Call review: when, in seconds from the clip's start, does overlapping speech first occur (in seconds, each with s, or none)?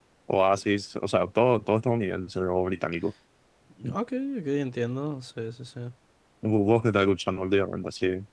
none